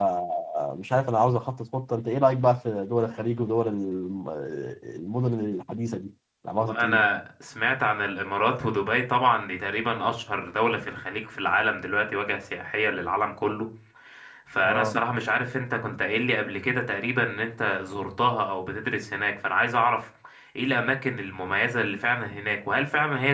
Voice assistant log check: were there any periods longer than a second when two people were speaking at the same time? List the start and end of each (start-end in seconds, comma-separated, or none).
none